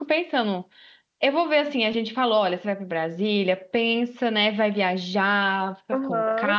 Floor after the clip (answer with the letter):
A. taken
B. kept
A